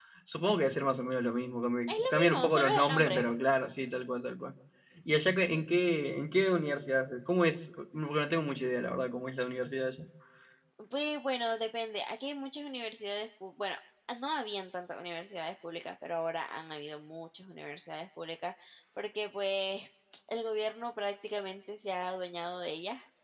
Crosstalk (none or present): present